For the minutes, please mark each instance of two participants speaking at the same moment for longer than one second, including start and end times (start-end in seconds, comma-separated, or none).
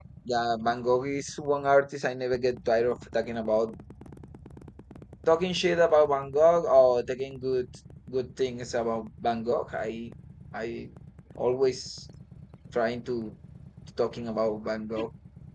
none